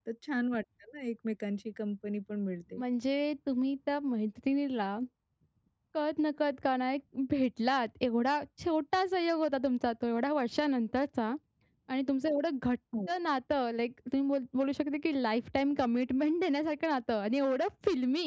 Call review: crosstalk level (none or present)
none